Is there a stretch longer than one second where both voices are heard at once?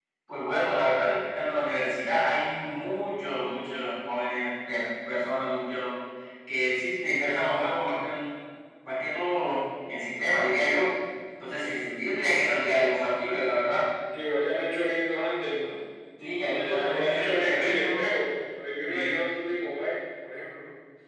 Yes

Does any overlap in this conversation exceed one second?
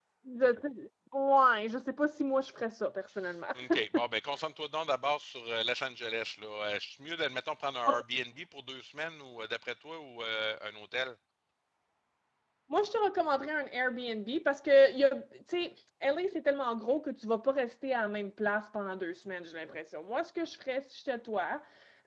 No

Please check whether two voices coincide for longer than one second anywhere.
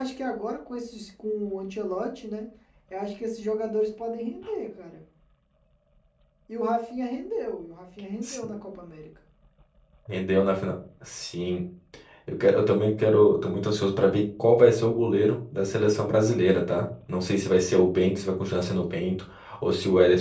No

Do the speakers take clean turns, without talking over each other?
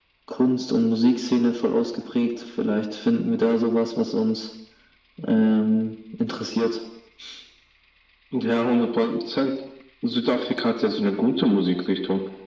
Yes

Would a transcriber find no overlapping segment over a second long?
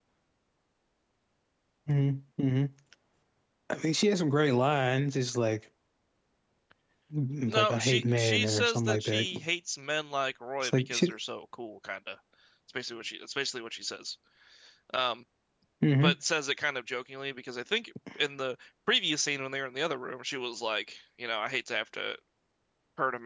No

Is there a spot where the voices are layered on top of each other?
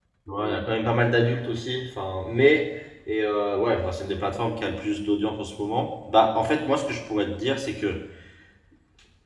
No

